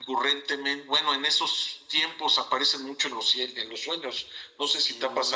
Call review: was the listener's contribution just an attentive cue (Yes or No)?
No